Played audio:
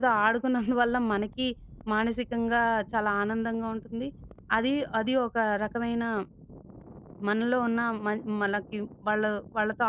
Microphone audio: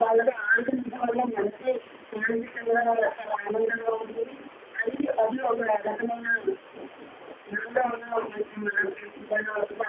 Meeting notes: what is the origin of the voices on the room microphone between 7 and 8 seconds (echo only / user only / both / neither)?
echo only